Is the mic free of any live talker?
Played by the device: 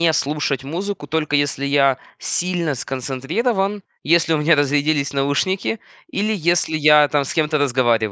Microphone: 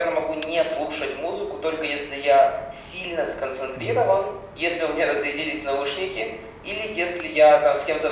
No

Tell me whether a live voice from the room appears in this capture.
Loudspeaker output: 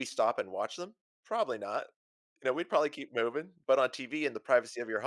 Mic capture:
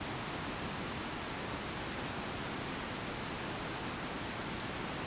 No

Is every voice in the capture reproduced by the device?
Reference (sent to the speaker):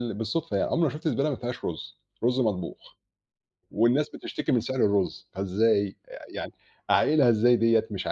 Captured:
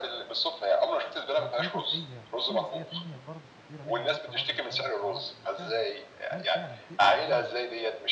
No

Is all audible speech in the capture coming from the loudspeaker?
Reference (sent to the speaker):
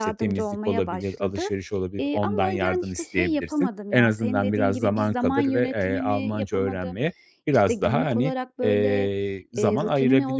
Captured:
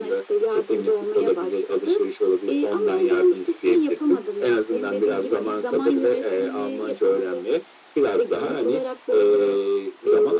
Yes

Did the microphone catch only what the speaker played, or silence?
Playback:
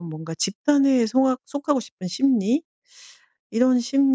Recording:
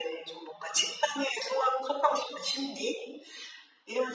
Yes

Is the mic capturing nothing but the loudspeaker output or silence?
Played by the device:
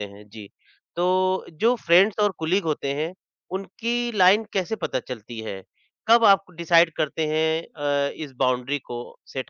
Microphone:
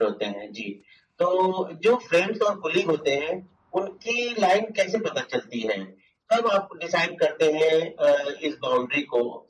Yes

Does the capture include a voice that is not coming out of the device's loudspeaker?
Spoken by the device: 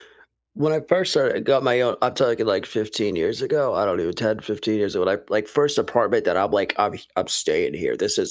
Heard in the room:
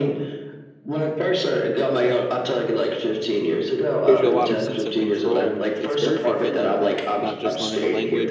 Yes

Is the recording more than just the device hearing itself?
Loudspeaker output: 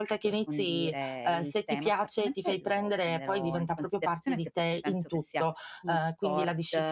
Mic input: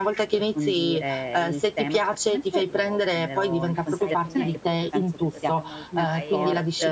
Yes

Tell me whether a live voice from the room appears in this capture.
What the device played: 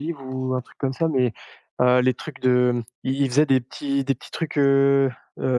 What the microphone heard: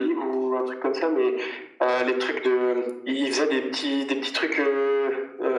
No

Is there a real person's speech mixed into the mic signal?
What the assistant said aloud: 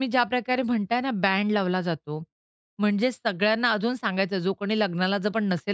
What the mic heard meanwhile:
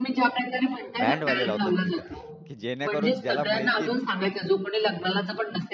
Yes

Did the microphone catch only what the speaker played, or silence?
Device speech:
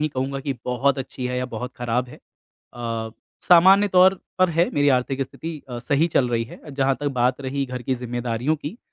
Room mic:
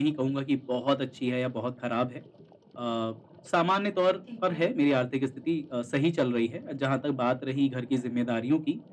No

